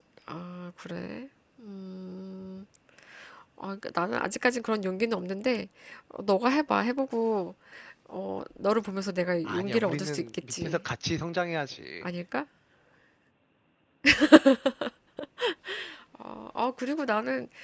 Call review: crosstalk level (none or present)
present